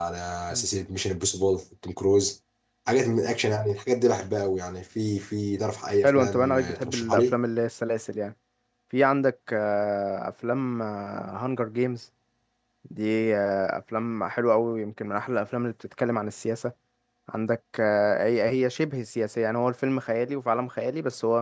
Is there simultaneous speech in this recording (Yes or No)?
Yes